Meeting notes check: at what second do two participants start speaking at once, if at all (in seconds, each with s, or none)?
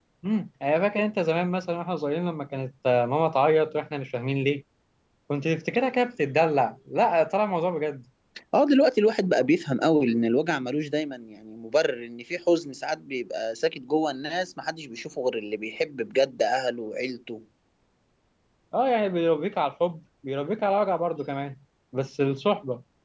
none